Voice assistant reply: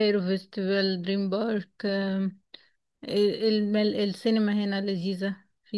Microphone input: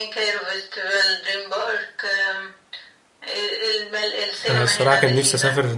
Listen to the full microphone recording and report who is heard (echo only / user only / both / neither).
both